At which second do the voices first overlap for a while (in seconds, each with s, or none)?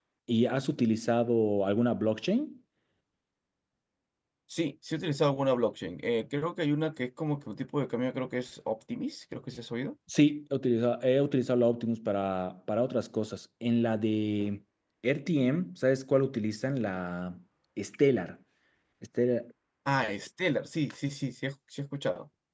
none